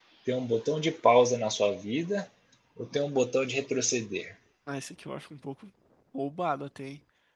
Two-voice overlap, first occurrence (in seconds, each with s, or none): none